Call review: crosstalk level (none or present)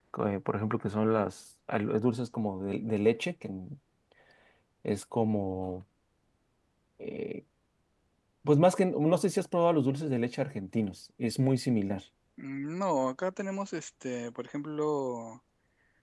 none